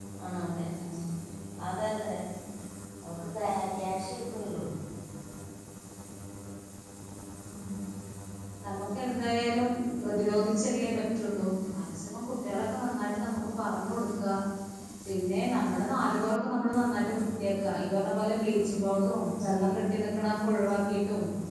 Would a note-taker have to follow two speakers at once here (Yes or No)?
No